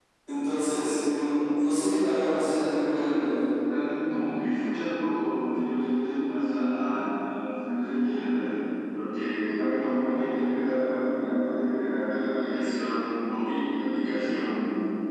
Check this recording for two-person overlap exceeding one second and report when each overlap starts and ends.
none

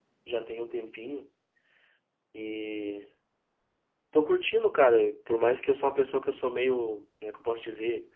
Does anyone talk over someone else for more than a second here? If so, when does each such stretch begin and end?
none

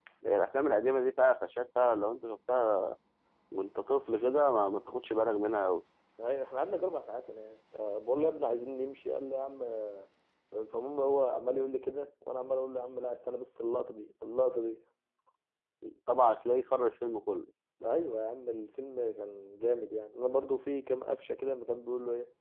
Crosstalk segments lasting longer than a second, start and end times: none

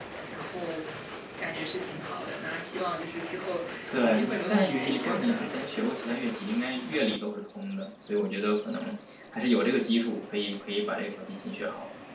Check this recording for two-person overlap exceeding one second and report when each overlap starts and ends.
4.0-5.4

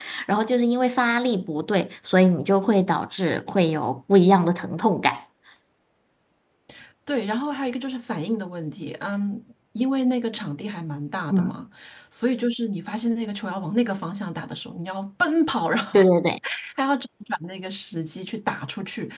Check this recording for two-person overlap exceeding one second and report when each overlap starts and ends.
none

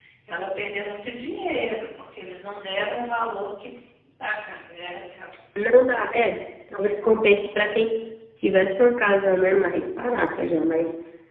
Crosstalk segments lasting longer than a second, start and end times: none

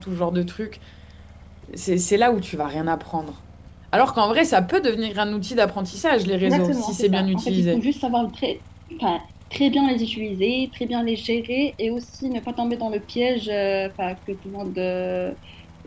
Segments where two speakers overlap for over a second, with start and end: 6.4-7.8

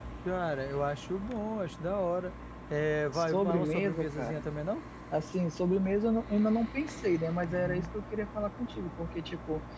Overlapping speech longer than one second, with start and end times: 3.1-4.5

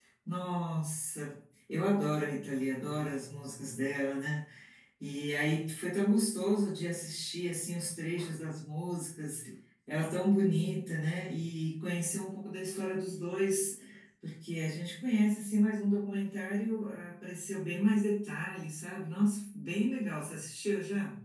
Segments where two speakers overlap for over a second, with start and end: none

